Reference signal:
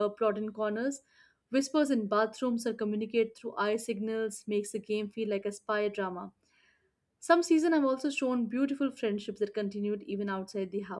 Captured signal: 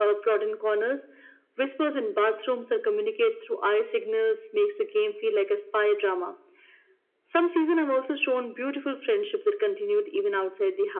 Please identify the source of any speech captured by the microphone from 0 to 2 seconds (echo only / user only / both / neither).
echo only